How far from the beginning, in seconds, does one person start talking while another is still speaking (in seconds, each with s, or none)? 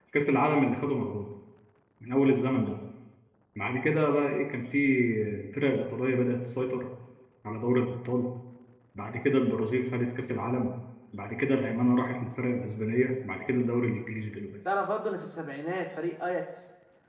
none